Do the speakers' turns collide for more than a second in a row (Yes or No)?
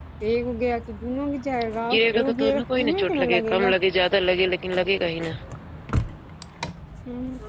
Yes